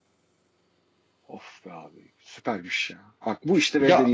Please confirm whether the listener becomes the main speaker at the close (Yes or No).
No